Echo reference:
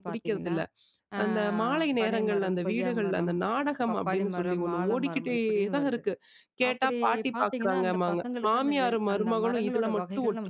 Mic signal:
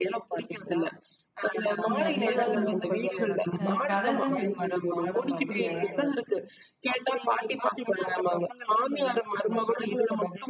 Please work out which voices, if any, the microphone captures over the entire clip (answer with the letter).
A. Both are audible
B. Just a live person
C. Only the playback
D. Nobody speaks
A